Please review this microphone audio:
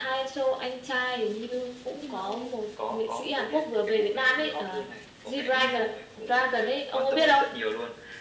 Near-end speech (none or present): present